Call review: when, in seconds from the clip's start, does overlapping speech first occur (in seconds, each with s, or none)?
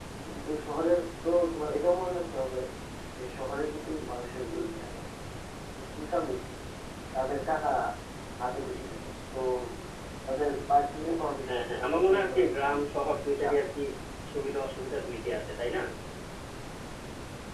11.5 s